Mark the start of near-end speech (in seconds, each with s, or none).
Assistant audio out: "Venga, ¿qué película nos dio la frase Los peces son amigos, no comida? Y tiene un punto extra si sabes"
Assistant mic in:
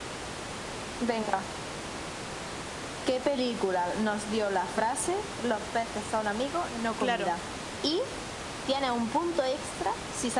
7.0 s